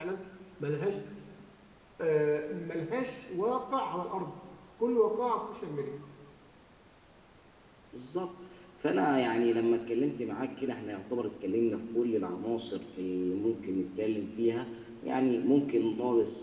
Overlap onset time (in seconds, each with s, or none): none